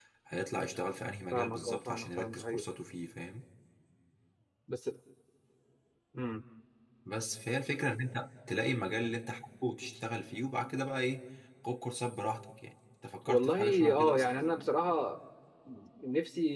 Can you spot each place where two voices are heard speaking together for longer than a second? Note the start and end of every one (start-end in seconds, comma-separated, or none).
1.3-2.6, 13.3-14.5